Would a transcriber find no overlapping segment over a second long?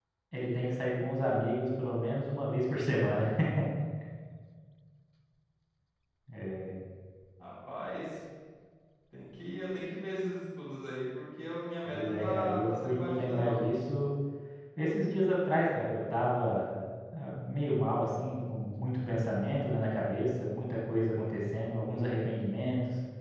No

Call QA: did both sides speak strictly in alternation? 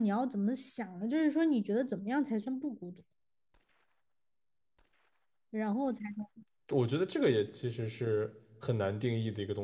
Yes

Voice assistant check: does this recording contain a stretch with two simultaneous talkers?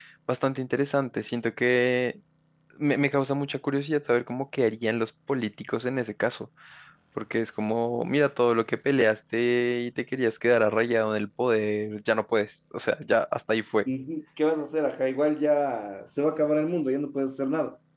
No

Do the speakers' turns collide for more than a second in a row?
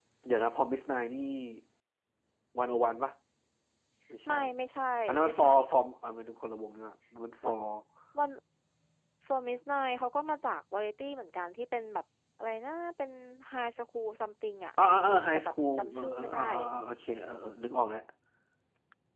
Yes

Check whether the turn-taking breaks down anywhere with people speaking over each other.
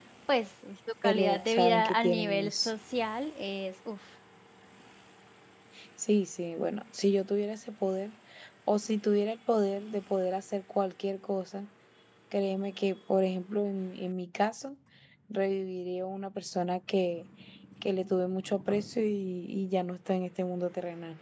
Yes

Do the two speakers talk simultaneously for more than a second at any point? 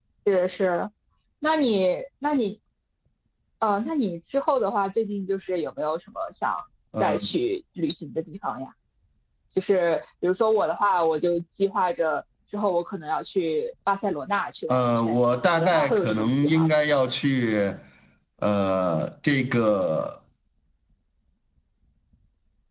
Yes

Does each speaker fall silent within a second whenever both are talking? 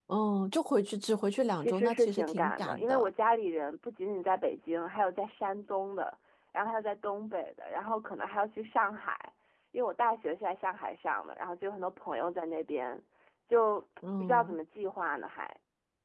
No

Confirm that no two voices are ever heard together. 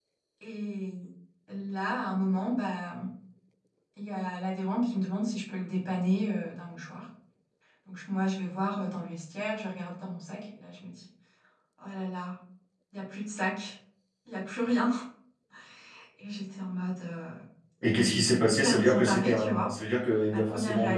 No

